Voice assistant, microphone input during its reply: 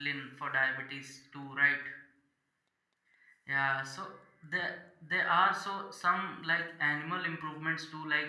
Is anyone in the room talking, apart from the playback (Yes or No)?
Yes